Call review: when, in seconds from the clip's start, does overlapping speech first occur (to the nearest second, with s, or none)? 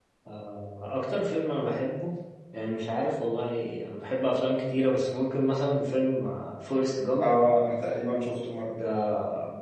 none